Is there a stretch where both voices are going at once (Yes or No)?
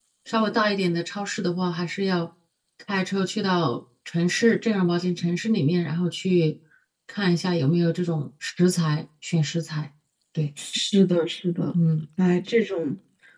No